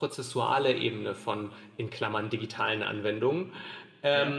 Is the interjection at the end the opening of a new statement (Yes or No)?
No